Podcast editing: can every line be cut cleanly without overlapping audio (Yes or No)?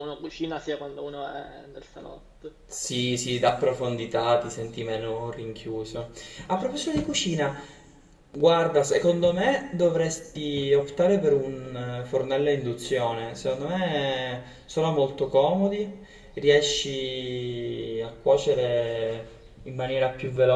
Yes